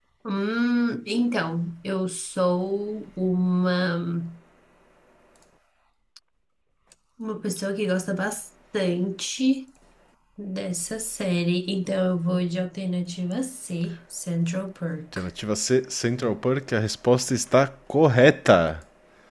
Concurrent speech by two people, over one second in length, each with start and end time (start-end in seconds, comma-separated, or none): none